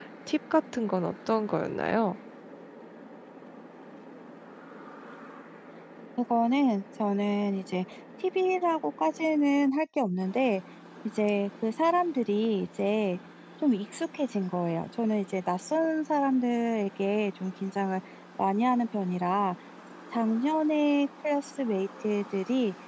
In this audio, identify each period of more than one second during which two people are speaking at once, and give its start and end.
none

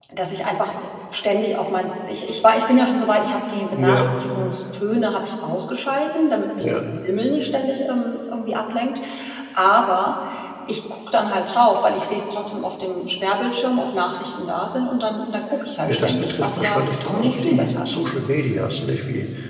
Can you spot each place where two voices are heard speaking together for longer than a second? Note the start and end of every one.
15.8-18.0

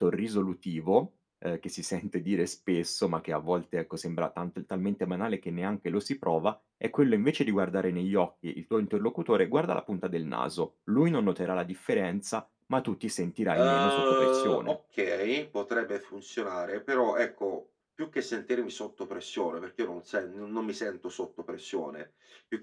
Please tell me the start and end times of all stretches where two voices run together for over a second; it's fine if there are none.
13.5-14.8

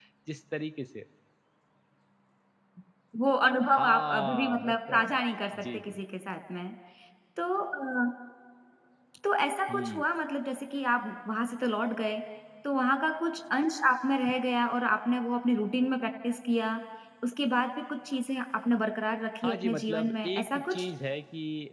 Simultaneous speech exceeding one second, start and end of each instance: 3.7-5.2, 19.4-20.9

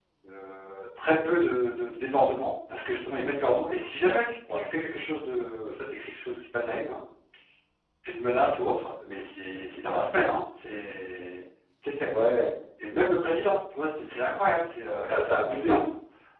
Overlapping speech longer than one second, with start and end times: none

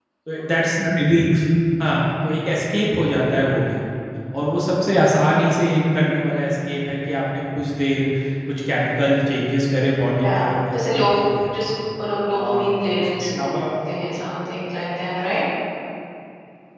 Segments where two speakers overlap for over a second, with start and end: 12.3-13.5

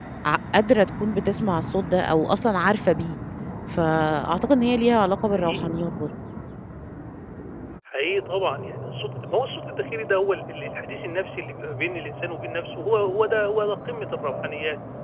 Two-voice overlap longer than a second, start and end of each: none

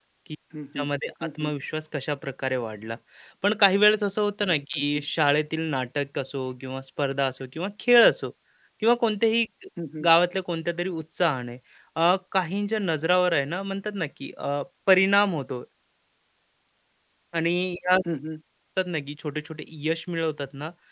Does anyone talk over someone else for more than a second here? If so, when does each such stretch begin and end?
none

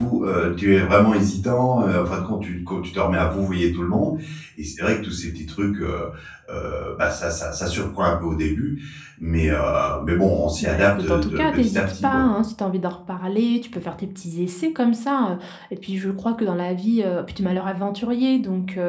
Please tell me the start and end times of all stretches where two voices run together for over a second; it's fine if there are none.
10.6-12.2

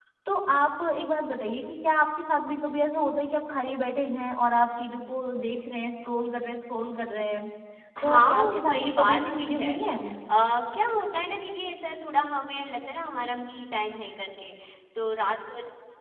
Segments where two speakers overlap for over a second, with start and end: 8.0-9.8

